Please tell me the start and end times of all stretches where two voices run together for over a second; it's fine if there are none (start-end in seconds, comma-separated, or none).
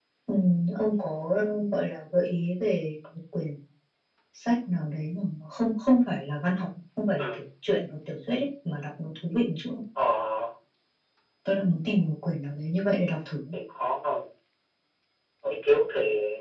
none